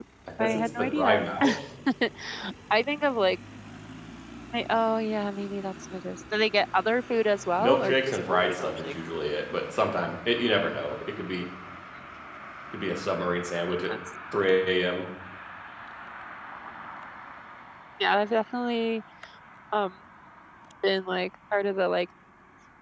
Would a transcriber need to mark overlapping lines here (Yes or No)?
Yes